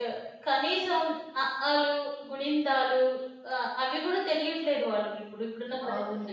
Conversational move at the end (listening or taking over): taking over